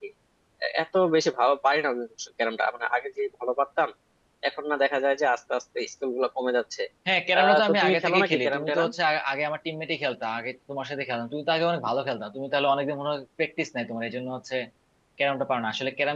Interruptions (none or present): present